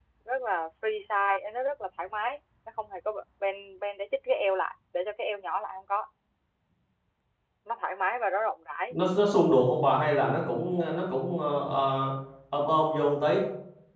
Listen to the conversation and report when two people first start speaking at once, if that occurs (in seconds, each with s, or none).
none